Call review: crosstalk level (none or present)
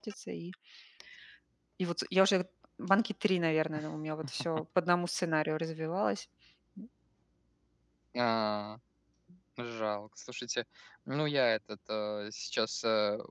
none